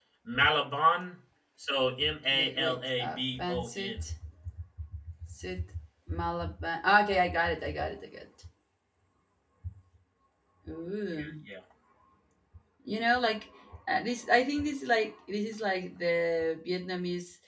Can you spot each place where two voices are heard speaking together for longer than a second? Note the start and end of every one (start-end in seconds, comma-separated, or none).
2.3-4.0